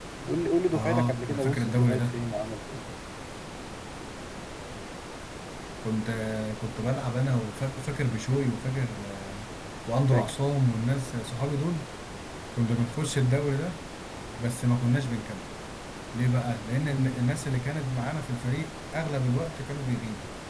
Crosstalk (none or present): present